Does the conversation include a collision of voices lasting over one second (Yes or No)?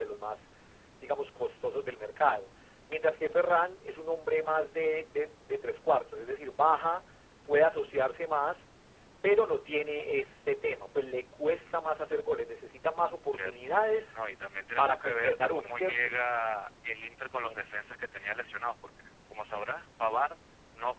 Yes